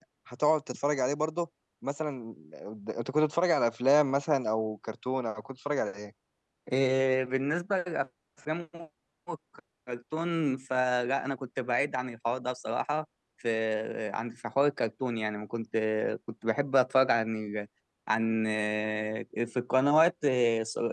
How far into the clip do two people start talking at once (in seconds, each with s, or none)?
none